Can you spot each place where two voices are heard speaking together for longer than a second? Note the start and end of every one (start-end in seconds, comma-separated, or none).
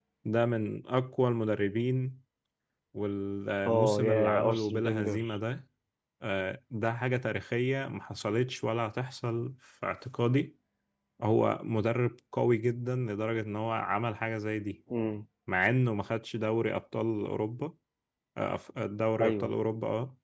3.7-5.3